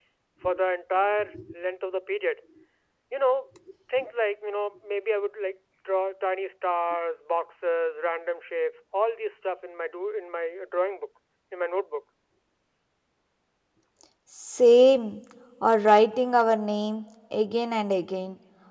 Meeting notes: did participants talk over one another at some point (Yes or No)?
No